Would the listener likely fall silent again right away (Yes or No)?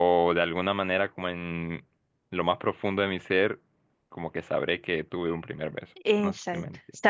No